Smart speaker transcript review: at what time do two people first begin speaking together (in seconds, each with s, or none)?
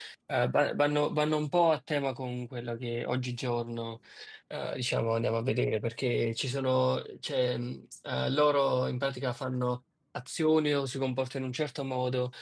none